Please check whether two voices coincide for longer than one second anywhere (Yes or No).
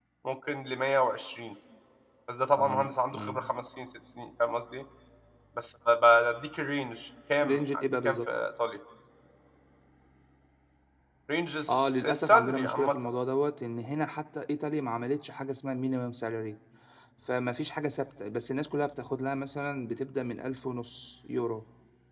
Yes